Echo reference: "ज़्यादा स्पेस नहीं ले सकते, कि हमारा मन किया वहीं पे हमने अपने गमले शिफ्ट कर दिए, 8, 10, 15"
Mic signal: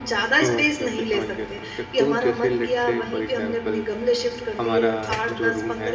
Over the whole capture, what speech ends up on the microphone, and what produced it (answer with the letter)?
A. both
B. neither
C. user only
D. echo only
A